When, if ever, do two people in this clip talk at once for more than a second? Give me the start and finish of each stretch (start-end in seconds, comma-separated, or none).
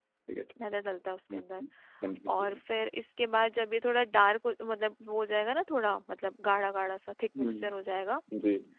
none